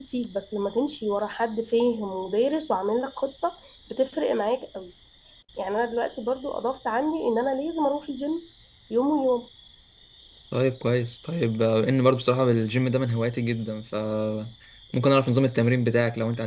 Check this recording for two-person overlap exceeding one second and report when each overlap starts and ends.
none

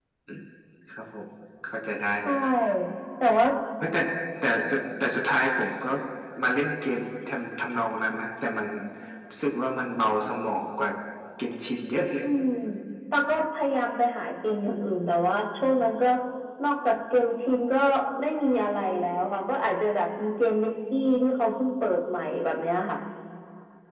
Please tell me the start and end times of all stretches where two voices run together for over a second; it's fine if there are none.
none

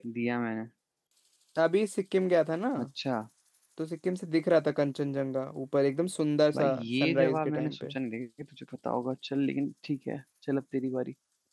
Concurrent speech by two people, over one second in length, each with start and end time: 6.5-7.9

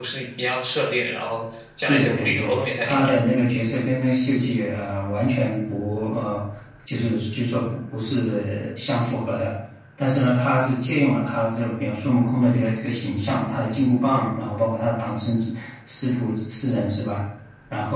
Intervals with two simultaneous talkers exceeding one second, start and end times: 1.9-3.1

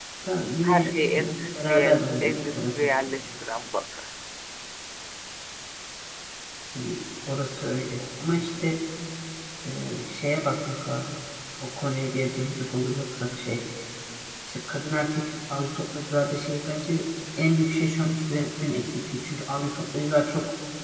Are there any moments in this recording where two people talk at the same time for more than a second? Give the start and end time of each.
0.6-2.9

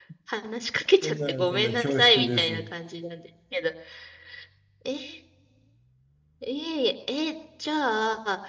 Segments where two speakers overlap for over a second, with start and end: 1.0-2.7

